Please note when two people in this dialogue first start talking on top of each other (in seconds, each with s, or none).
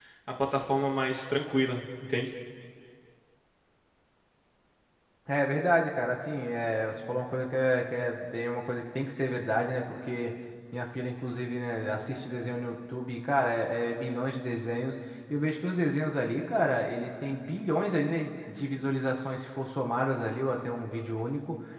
none